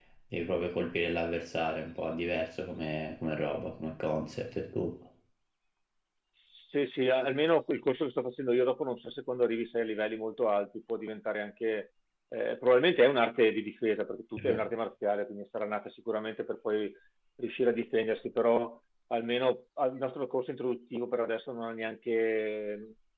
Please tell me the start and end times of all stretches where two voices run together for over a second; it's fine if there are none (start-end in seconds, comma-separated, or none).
none